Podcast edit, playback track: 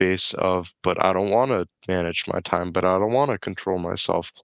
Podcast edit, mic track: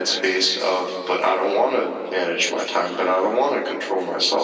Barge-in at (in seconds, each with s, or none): none